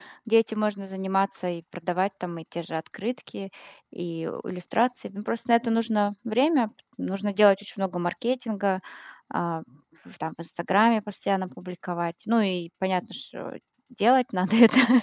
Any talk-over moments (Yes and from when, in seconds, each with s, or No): No